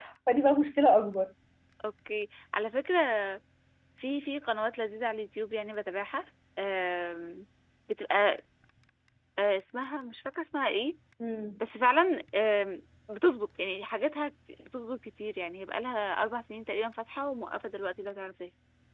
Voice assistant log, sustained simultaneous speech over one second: none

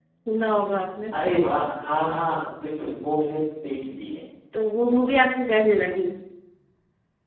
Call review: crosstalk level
none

